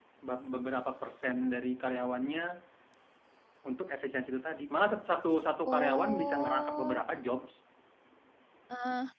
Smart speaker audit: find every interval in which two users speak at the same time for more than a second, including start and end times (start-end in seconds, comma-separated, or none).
5.7-7.0